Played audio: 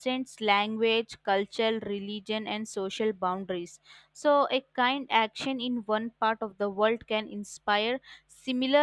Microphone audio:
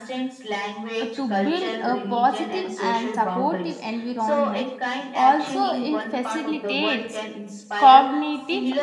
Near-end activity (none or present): present